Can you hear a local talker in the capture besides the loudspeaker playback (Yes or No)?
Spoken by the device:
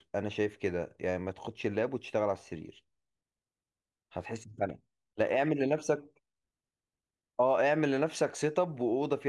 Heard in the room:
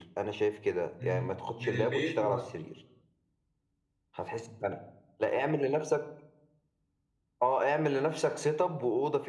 Yes